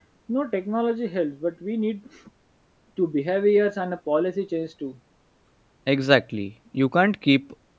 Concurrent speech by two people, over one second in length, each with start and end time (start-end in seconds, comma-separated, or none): none